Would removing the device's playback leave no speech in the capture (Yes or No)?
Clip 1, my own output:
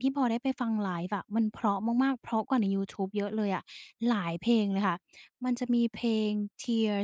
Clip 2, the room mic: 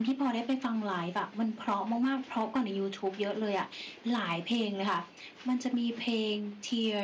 Yes